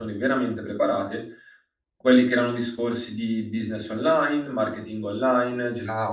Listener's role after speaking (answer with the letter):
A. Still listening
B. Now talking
B